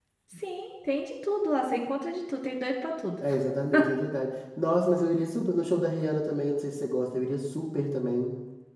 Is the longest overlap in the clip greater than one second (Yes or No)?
No